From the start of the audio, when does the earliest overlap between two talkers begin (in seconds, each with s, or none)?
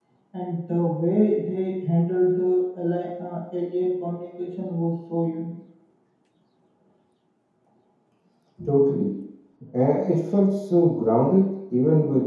none